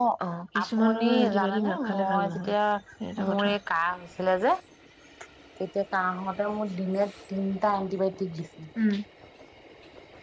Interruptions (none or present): present